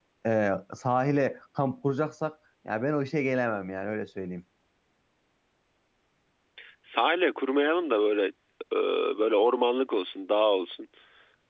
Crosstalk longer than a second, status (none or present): none